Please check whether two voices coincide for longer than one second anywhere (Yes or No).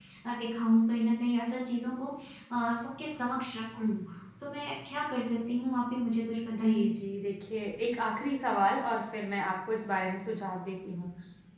No